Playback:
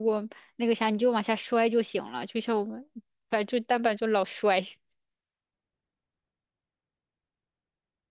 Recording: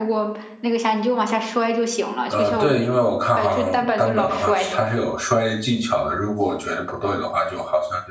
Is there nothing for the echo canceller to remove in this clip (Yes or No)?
No